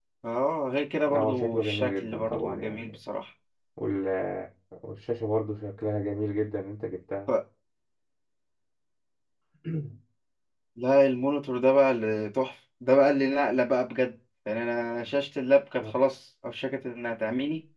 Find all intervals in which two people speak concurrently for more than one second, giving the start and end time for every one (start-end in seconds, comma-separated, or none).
1.1-2.9